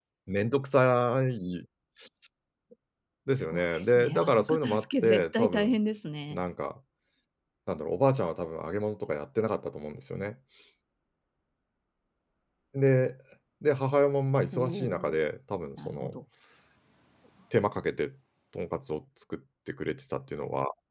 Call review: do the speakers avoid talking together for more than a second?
No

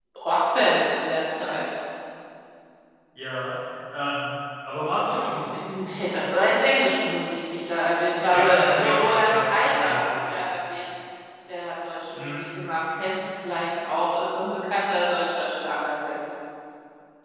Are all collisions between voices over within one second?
No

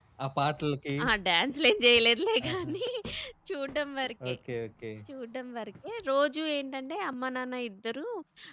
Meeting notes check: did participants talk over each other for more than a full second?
No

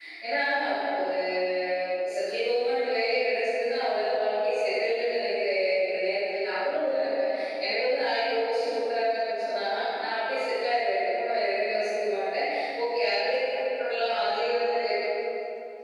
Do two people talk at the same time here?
No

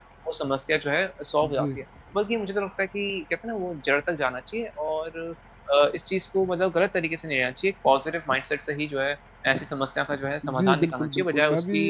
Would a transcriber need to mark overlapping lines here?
Yes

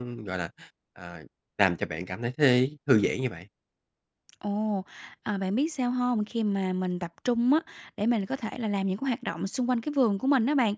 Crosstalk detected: No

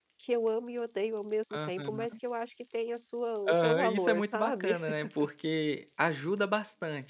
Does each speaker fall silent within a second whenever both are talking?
No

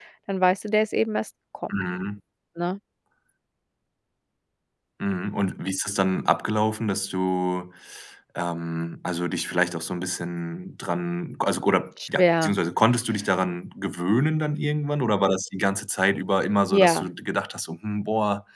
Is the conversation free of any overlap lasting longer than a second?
Yes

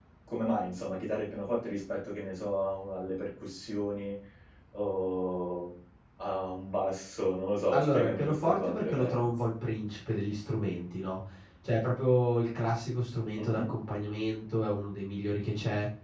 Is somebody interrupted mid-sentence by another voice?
Yes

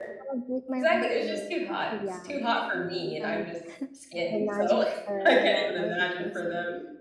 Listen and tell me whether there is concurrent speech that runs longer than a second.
Yes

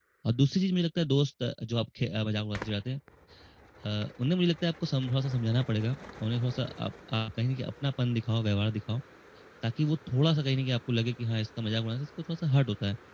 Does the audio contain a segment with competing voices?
No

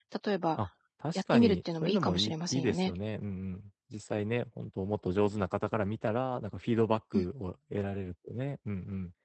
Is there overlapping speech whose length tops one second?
Yes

